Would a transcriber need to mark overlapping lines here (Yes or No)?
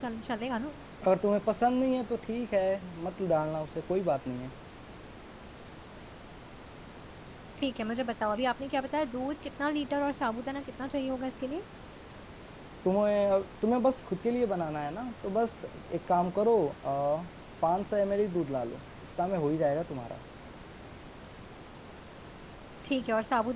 No